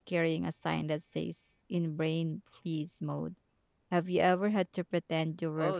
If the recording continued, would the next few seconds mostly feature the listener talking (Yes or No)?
Yes